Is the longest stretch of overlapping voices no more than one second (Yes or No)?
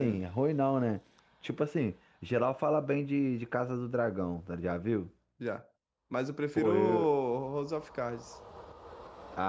Yes